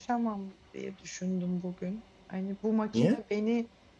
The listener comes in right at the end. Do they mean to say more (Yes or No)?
No